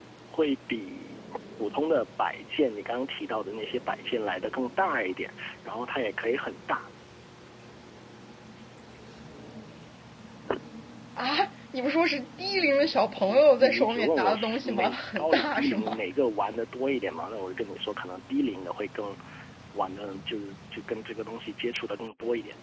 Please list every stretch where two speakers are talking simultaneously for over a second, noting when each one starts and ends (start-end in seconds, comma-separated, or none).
13.3-16.0